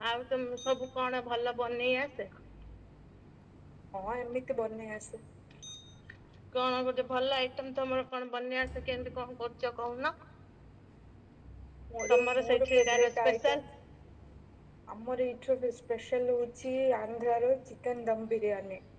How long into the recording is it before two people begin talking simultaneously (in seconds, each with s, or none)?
12.1 s